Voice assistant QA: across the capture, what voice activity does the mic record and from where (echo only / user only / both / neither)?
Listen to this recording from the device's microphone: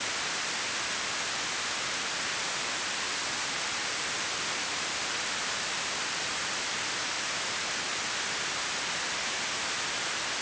neither